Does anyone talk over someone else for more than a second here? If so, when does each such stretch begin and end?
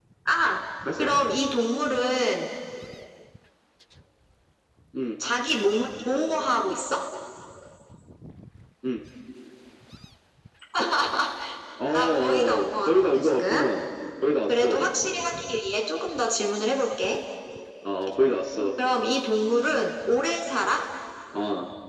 11.9-13.4

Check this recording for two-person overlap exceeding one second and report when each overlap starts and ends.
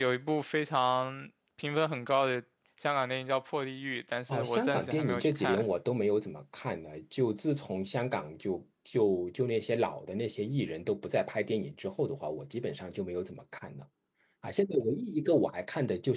4.3-5.6

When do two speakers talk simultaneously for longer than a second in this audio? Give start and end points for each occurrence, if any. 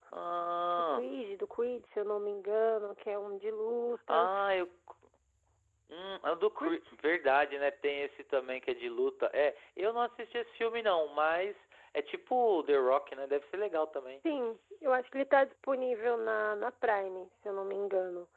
none

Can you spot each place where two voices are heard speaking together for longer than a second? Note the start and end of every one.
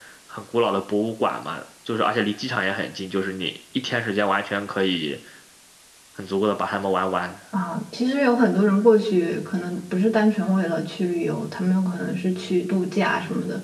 none

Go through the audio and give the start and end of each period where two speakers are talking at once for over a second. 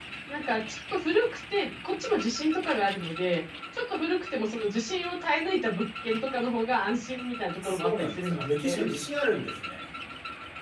7.6-8.9

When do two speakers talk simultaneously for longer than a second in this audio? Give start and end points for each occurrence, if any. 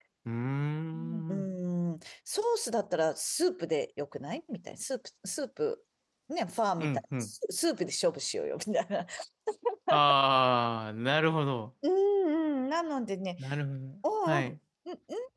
none

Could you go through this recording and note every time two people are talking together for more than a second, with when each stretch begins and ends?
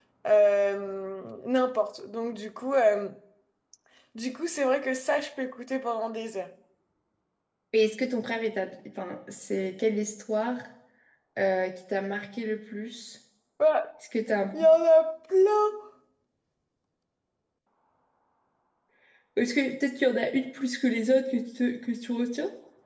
none

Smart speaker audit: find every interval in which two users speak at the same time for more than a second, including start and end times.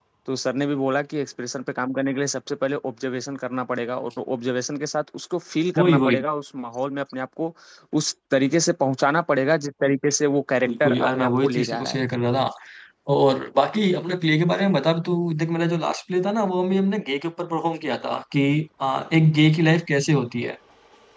10.7-12.0

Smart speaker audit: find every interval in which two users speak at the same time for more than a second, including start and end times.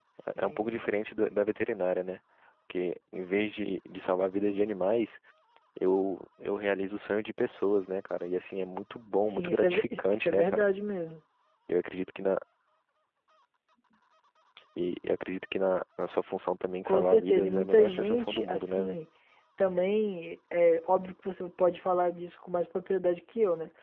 9.2-10.7, 16.9-19.0

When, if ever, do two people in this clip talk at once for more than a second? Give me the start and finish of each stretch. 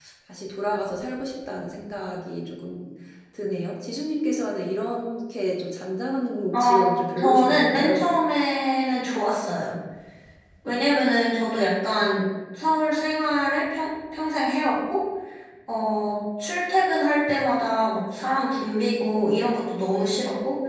6.5-8.1

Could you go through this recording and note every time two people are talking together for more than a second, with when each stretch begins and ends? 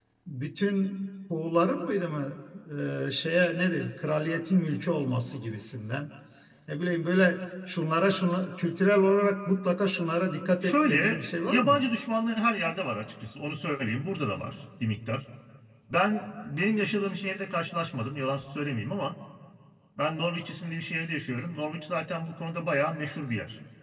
10.6-11.8

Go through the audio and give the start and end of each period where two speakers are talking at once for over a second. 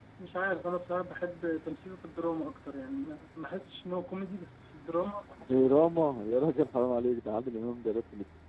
none

